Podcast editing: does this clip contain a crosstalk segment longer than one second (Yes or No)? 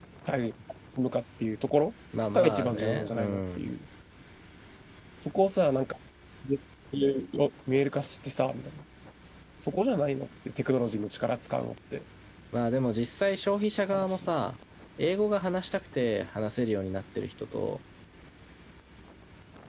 Yes